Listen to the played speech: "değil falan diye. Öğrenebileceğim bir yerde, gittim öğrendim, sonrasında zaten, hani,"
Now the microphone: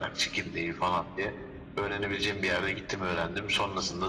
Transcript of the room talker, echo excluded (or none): none